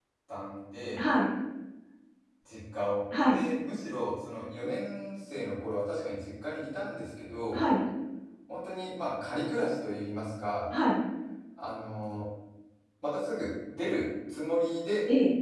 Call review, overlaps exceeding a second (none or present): none